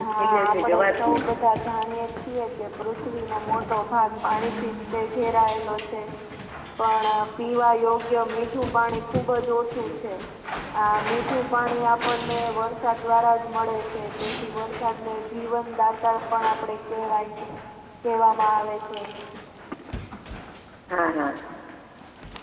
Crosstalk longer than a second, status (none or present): present